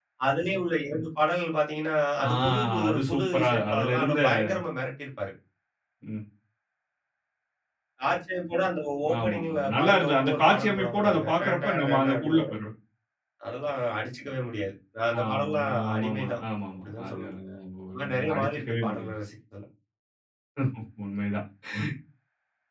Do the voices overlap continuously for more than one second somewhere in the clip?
Yes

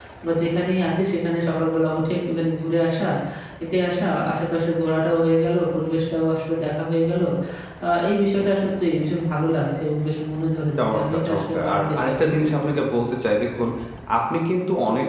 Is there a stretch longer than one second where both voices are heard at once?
Yes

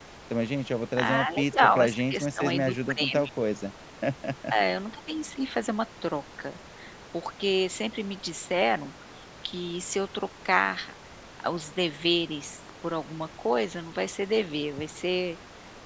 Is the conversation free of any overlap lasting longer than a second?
No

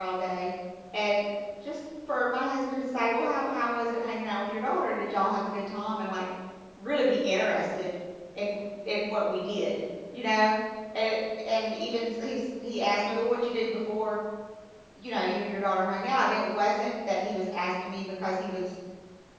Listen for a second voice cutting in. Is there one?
No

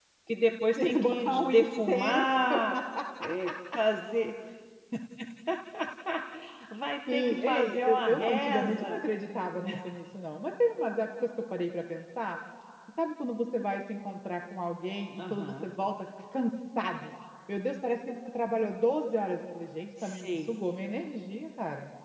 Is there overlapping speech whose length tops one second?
Yes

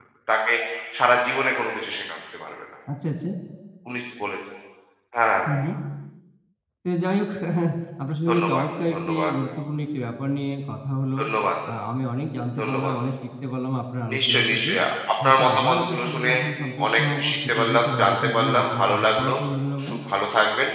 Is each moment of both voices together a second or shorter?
No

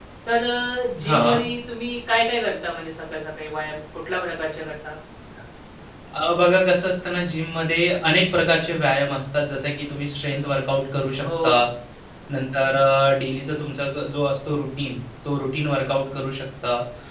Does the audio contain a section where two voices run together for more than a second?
No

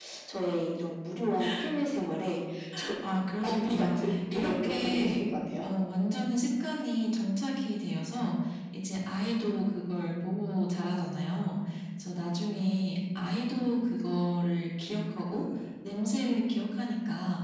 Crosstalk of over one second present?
Yes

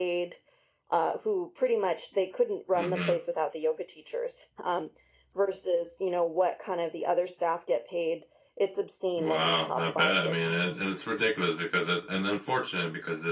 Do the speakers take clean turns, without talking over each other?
No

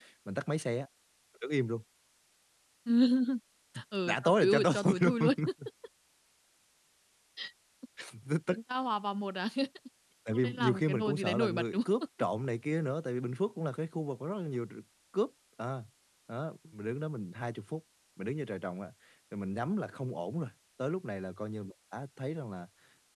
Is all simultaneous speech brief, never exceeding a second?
No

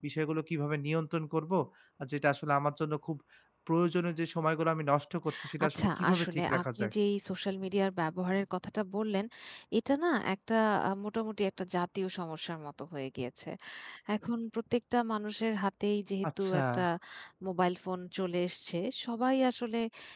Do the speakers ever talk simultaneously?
Yes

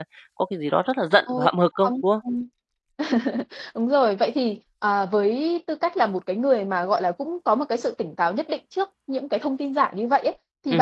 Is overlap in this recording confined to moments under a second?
Yes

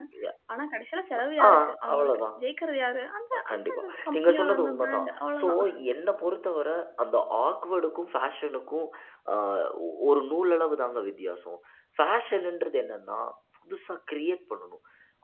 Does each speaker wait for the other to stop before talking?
No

